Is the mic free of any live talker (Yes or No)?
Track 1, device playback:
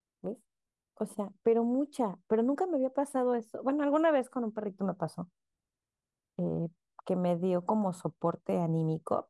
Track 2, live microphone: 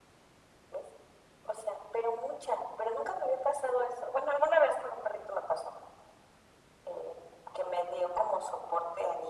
Yes